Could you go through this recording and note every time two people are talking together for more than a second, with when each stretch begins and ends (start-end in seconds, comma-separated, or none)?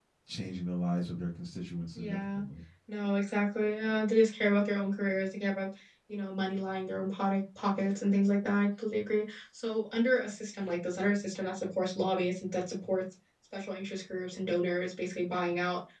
none